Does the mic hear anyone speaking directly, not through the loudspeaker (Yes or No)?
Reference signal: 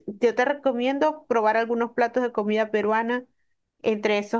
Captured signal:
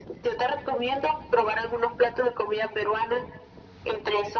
No